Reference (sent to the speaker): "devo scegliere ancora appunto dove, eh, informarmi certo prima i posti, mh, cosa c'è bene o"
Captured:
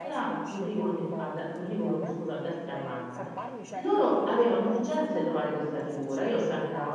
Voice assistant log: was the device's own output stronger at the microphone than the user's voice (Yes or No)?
No